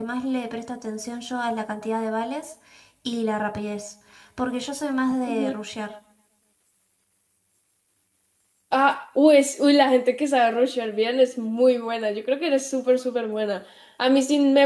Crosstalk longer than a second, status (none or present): none